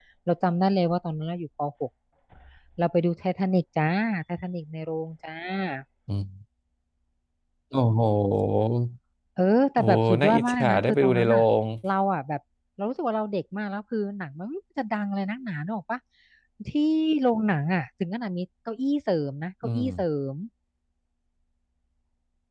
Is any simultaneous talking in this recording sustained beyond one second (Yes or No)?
Yes